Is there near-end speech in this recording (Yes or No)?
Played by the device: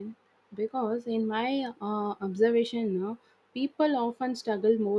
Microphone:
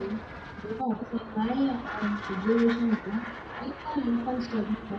No